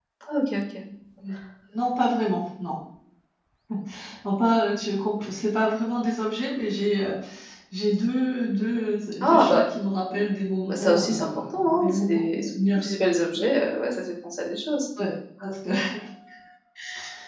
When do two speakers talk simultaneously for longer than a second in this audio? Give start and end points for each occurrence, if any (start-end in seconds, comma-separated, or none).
10.7-12.9